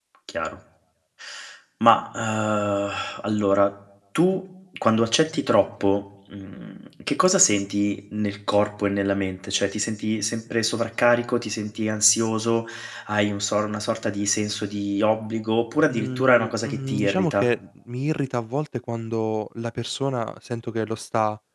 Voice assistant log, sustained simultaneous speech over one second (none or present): present